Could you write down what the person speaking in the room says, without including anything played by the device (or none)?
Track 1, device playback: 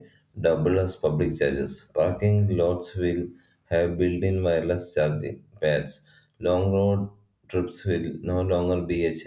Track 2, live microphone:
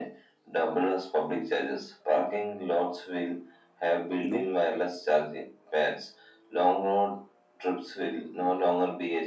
you know